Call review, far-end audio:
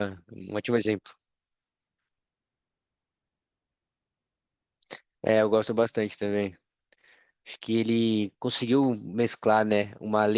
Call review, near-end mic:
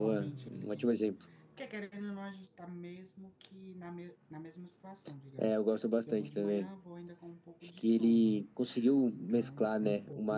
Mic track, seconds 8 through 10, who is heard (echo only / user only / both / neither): both